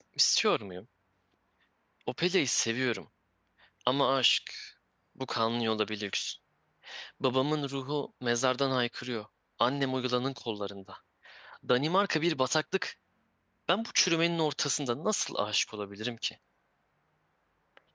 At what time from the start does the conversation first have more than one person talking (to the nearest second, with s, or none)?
none